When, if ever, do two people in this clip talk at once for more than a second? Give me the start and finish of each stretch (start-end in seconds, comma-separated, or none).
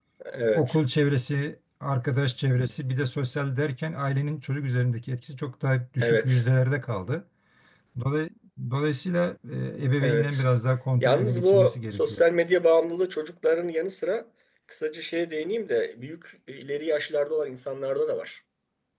11.0-12.2